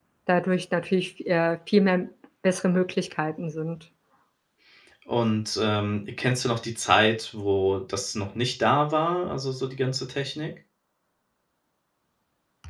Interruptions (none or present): none